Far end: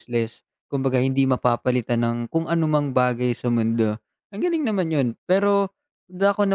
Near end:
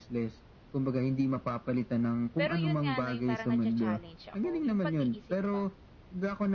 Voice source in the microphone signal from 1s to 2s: echo only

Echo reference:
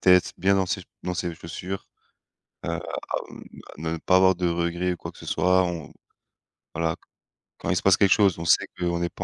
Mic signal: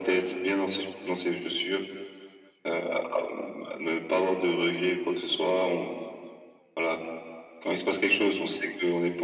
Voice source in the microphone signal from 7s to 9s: echo only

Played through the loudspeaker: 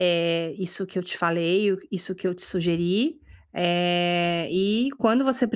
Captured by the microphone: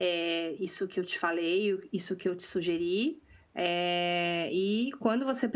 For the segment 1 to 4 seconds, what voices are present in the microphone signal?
echo only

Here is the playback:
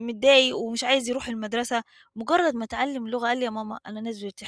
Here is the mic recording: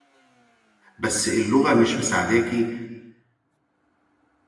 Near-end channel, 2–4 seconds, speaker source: user only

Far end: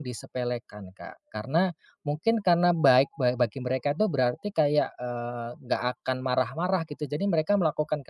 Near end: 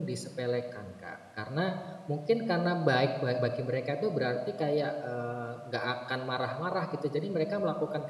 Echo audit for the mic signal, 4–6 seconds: echo only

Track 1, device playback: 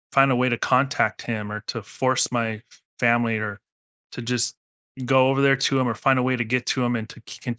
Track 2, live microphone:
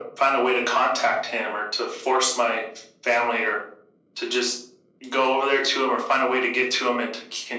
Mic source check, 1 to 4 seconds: echo only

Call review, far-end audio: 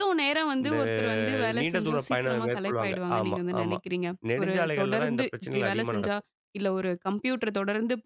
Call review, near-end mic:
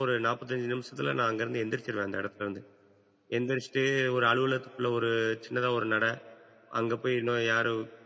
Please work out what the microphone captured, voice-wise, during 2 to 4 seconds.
user only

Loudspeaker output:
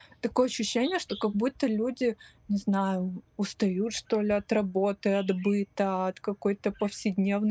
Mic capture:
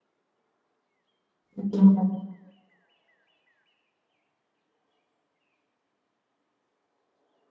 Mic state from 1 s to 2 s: user only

